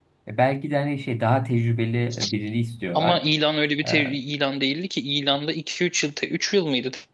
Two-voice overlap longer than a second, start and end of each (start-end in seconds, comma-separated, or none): none